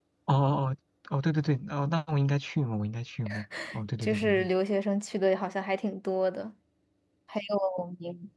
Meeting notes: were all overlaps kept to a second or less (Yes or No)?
Yes